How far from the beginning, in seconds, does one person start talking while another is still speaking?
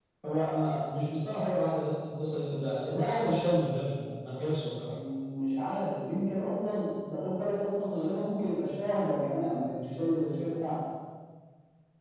none

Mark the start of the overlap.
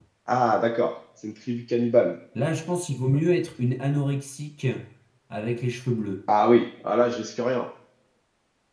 none

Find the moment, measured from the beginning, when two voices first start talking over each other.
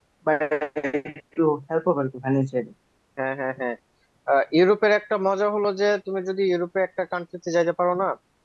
none

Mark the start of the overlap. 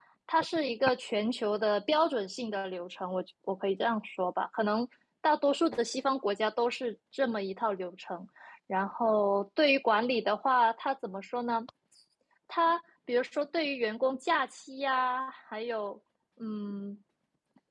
none

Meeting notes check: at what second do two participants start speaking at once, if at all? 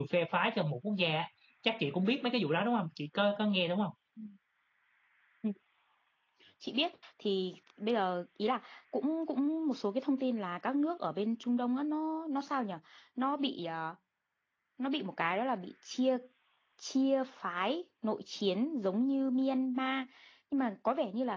none

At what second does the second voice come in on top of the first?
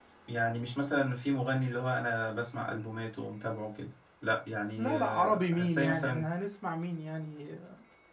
4.8 s

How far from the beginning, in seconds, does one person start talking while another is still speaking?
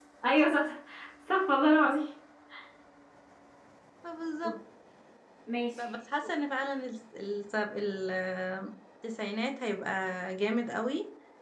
none

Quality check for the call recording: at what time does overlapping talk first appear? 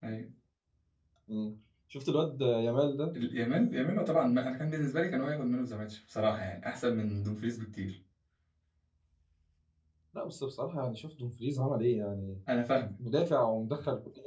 none

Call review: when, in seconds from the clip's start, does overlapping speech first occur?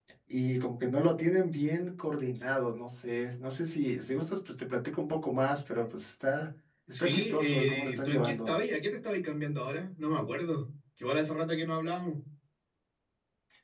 6.9 s

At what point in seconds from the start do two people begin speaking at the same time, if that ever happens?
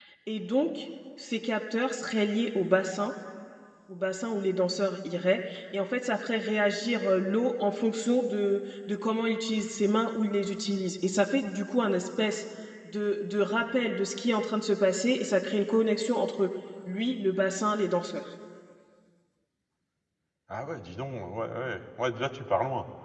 none

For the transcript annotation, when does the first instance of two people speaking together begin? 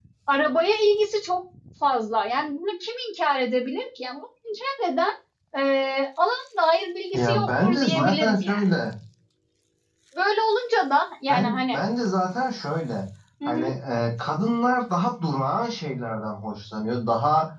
7.1 s

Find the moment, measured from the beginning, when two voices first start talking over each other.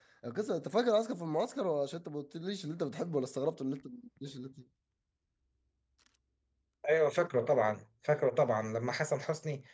none

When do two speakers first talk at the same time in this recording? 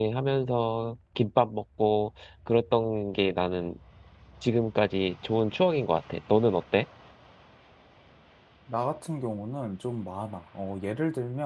none

